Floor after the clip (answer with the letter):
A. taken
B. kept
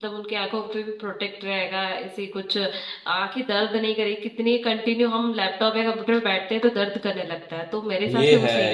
A